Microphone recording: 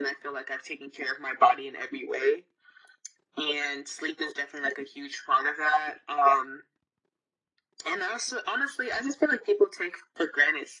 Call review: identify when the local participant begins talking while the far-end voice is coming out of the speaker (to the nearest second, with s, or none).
none